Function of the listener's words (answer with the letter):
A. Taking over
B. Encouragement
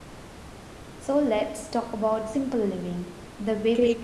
A